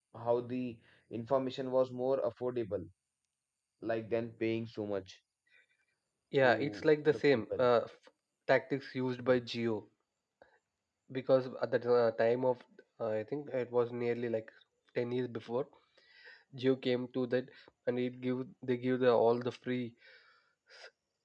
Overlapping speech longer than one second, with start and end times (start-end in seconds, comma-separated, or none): 6.4-7.7